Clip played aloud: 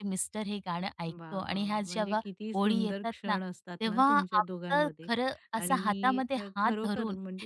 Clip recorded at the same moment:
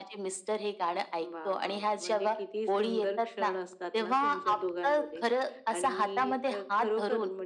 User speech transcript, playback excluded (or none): none